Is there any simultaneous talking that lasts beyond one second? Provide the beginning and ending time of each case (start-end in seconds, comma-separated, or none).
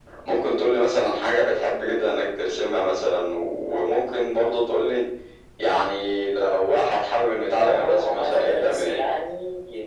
7.6-9.0